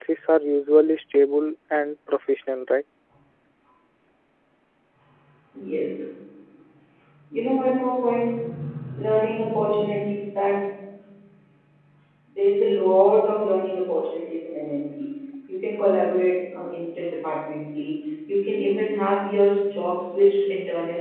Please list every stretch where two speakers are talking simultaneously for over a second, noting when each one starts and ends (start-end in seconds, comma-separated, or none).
none